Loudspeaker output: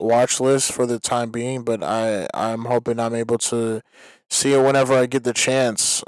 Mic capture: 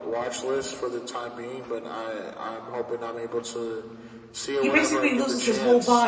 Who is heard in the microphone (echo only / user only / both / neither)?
both